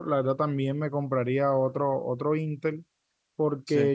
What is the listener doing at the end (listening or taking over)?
listening